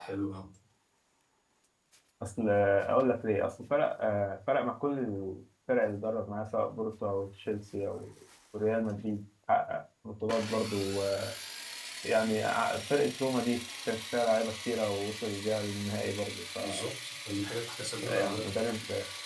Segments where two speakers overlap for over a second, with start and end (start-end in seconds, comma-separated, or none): none